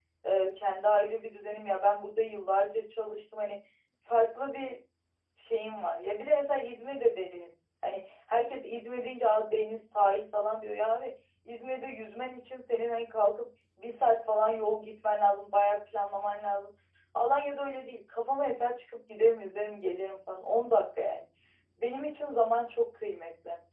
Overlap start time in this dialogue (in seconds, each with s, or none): none